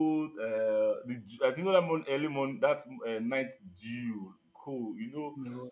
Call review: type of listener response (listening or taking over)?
listening